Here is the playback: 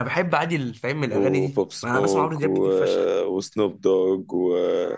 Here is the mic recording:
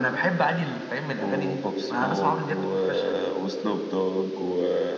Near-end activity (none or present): none